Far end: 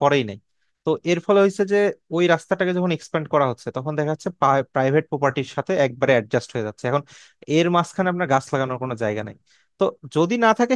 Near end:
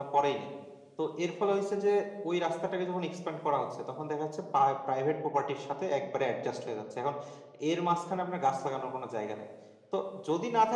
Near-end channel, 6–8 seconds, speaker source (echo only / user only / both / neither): echo only